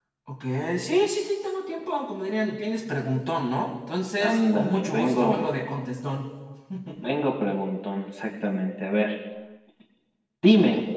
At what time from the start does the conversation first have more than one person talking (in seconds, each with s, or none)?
4.2 s